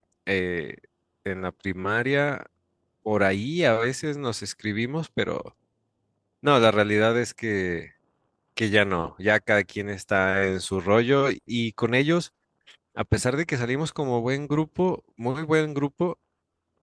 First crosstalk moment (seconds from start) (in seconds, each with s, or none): none